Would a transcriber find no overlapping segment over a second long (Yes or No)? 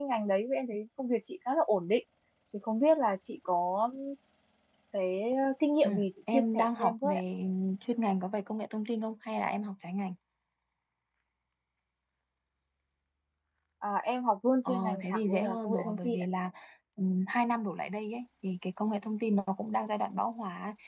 No